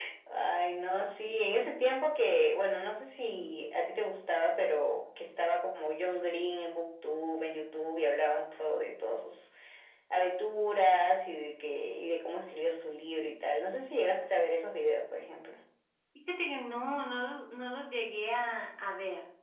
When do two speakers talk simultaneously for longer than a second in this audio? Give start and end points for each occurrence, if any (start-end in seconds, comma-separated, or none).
none